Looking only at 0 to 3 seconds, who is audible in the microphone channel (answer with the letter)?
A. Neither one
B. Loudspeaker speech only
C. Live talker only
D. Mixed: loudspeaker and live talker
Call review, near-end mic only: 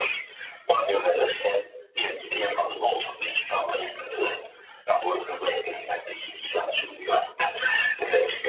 B